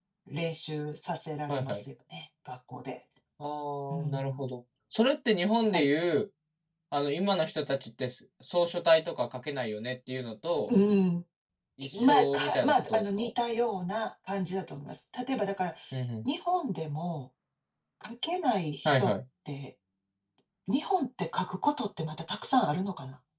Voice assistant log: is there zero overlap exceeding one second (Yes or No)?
No